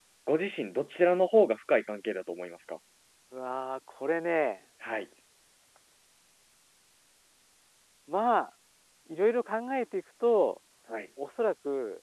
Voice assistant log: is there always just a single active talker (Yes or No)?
Yes